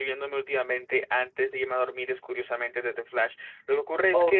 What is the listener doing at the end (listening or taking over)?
listening